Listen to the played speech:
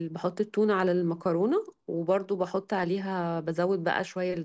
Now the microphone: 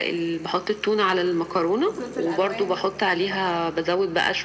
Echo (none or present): present